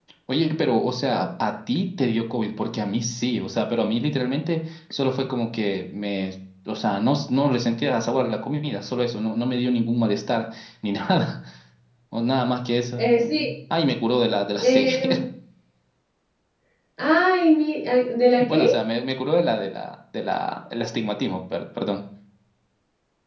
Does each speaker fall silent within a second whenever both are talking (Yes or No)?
Yes